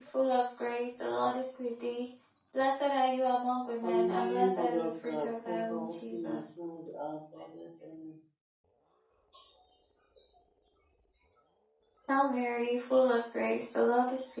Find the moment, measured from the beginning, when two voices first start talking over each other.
3.8 s

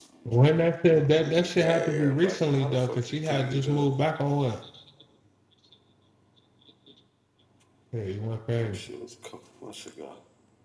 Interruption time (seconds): 1.0 s

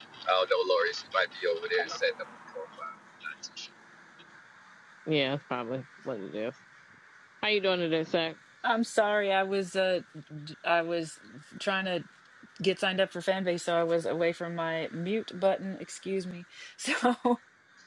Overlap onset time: none

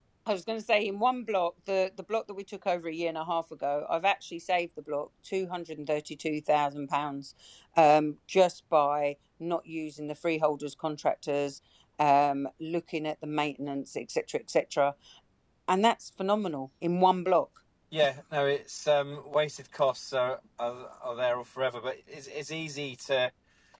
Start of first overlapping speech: none

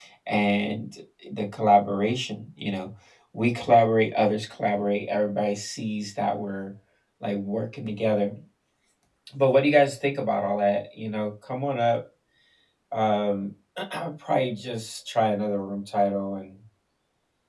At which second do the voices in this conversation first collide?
none

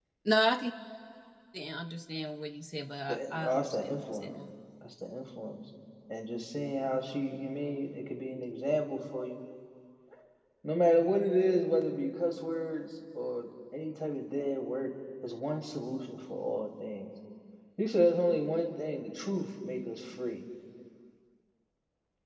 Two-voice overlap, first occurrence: 3.1 s

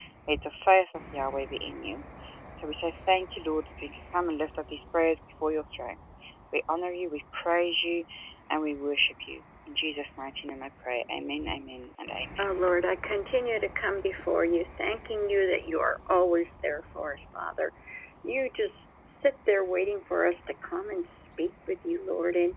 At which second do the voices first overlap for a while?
none

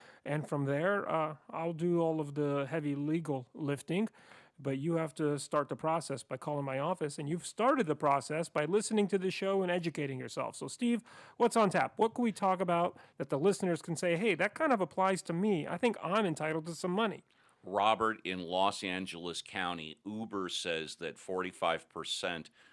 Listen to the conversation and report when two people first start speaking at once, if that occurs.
none

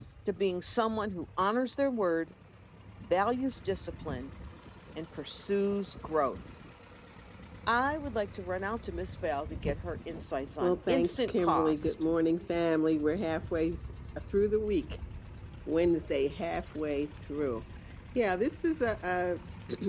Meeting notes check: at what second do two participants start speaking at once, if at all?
10.6 s

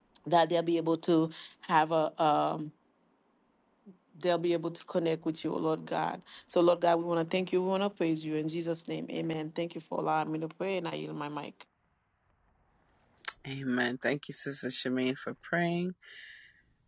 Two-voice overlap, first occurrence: none

